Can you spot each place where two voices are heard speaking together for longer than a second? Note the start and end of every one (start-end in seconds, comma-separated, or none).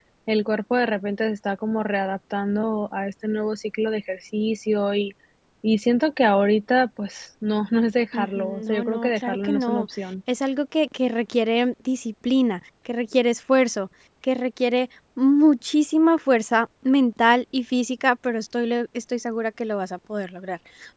8.1-9.9